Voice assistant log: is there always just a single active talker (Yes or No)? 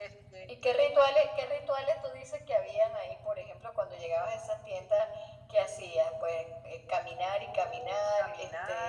No